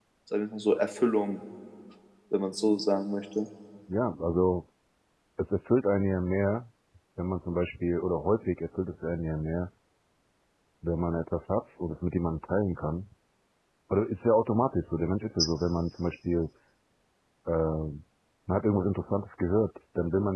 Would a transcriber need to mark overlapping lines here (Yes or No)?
No